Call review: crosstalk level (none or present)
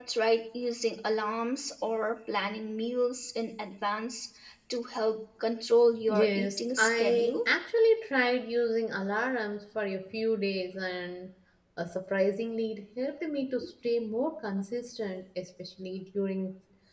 present